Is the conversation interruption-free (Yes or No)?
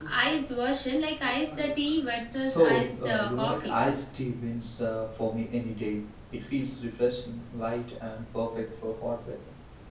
No